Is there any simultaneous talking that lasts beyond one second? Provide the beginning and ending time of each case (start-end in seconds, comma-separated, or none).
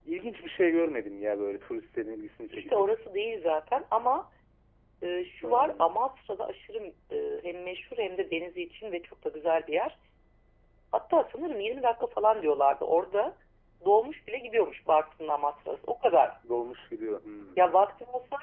none